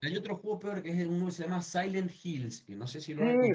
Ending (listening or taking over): taking over